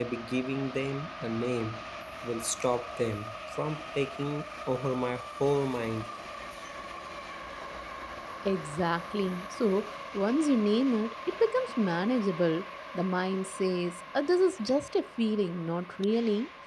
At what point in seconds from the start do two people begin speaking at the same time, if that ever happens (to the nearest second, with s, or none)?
none